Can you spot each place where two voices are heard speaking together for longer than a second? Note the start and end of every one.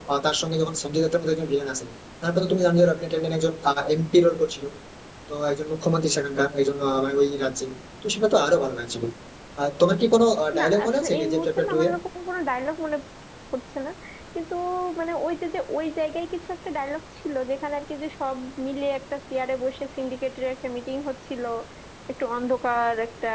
10.6-11.9

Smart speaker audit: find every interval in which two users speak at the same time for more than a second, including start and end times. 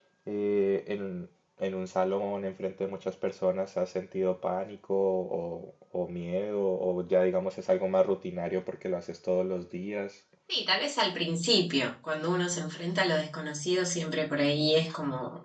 none

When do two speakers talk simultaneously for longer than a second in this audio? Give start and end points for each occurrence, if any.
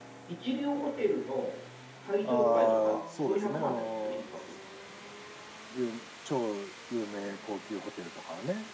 2.2-4.2

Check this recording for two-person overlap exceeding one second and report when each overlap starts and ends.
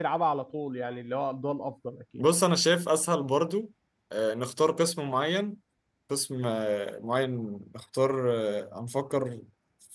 none

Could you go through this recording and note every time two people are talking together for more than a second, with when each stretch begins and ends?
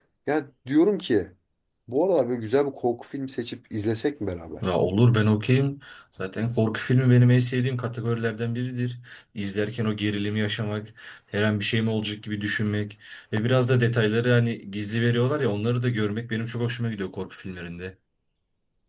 none

